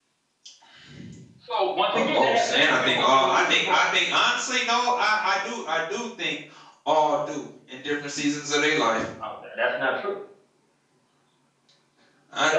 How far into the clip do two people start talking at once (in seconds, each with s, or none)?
1.9 s